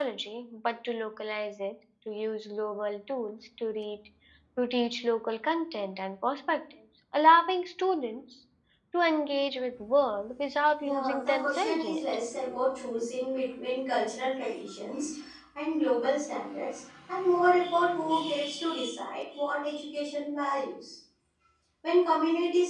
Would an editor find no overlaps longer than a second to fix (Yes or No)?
No